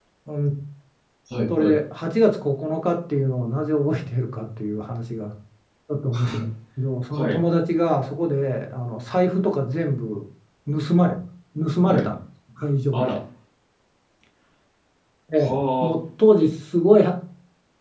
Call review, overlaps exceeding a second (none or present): none